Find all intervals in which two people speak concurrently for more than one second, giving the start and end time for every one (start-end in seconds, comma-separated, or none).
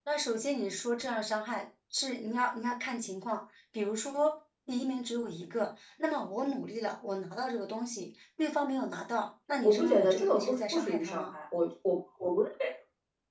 9.6-11.3